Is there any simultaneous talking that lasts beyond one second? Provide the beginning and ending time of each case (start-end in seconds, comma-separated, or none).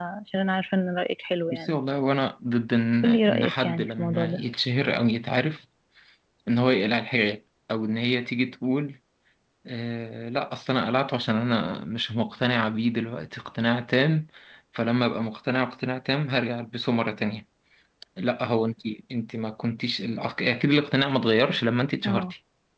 3.0-4.4